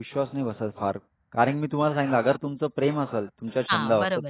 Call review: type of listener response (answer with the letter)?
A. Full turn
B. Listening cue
B